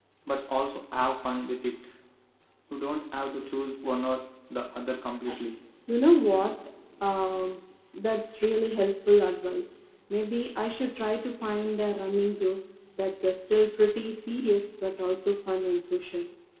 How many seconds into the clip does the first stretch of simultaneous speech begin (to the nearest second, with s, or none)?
none